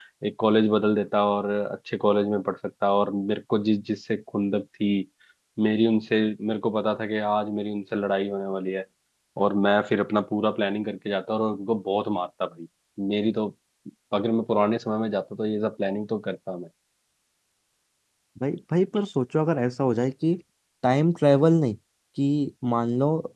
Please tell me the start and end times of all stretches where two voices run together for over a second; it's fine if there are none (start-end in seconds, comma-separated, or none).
none